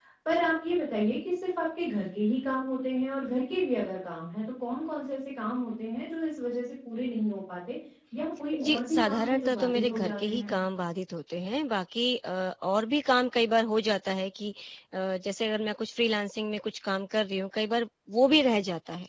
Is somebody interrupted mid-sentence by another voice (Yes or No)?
Yes